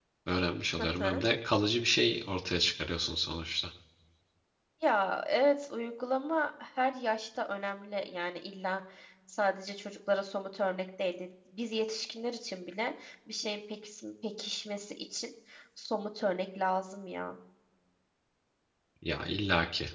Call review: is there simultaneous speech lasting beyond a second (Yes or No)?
No